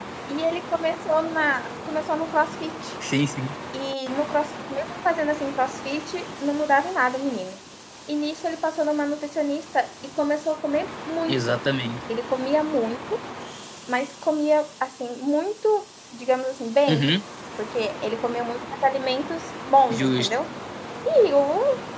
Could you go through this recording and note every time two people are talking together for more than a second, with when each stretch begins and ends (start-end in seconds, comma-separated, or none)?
none